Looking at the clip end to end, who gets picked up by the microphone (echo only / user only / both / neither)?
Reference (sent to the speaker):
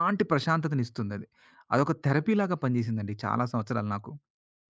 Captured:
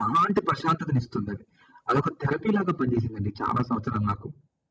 echo only